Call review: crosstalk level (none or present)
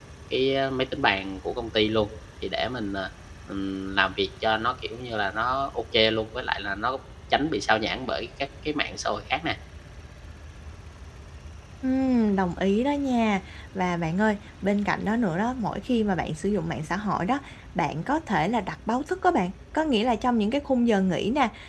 none